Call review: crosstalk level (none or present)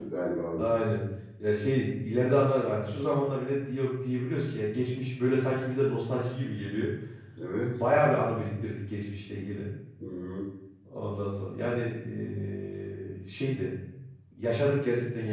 none